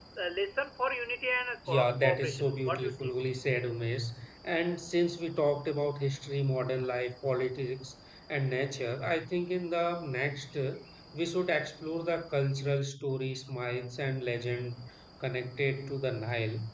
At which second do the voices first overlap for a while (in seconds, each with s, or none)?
1.7 s